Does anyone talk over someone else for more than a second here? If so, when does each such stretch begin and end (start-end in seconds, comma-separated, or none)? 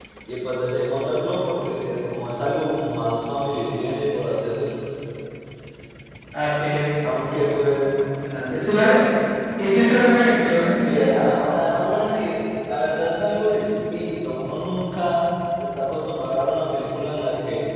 none